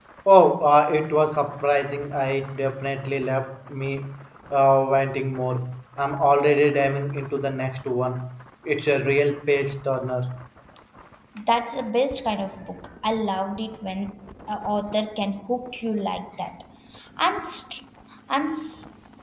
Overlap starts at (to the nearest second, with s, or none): none